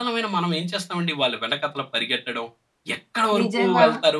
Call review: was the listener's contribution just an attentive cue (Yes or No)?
Yes